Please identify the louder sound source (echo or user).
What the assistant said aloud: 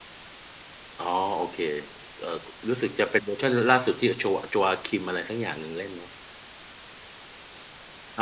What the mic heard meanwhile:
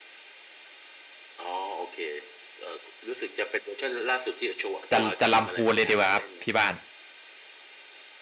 user